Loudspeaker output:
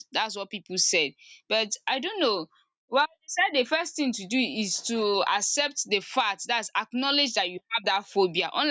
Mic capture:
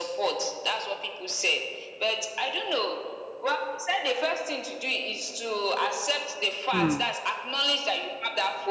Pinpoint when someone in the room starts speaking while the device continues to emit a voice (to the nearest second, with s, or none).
7 s